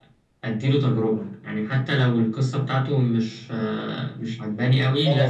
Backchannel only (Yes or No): No